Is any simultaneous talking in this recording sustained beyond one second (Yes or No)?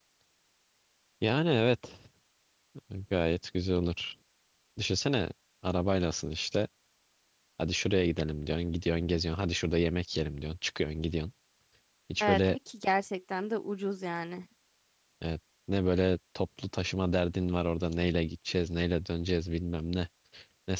No